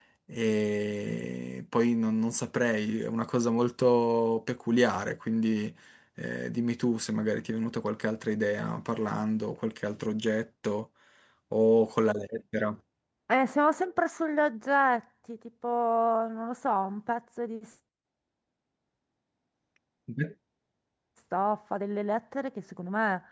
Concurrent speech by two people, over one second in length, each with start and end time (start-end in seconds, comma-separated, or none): none